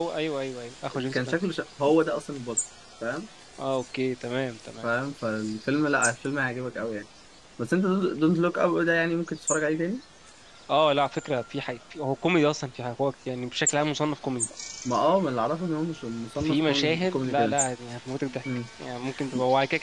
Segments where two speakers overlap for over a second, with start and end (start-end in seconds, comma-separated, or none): 16.4-17.6